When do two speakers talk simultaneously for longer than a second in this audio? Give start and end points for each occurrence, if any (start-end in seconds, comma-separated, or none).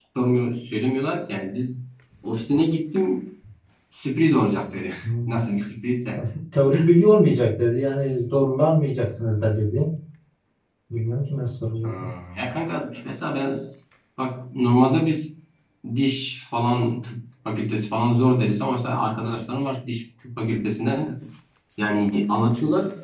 none